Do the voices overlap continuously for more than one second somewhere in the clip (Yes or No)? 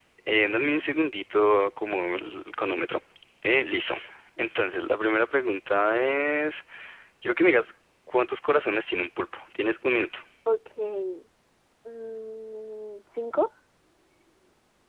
No